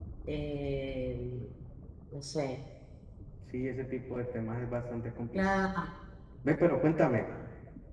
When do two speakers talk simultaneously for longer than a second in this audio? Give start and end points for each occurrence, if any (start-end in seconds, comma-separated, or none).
none